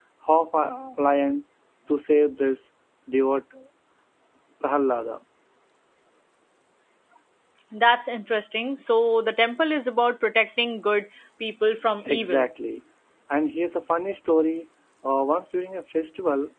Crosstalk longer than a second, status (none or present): none